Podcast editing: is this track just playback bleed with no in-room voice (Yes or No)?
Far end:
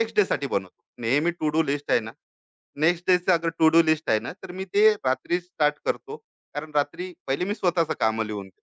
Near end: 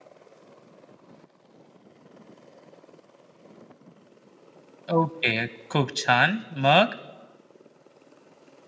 No